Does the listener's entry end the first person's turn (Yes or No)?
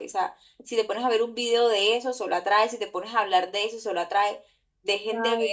No